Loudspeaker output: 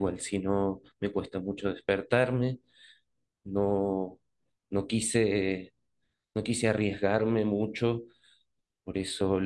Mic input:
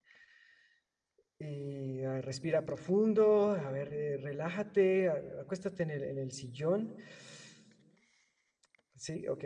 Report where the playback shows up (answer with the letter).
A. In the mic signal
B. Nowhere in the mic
B